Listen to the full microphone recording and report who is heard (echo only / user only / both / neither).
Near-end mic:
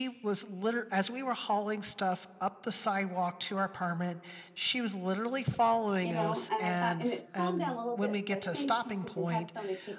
both